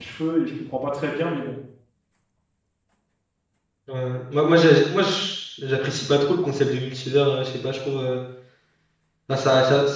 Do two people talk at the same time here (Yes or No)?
No